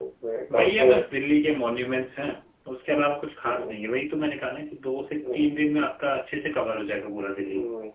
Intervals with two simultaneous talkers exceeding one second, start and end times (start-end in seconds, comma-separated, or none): none